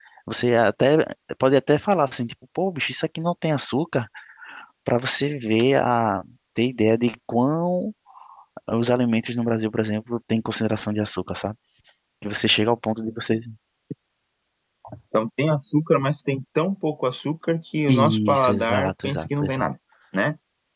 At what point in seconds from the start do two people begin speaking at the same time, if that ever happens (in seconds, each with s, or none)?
17.9 s